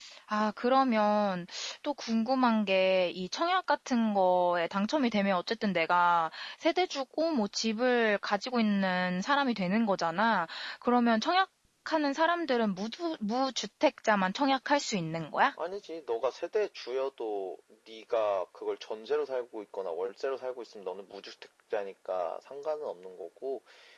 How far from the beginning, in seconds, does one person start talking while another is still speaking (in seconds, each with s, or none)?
none